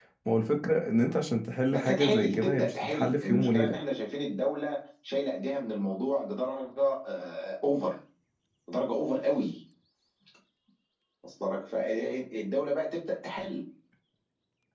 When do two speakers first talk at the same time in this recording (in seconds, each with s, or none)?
1.7 s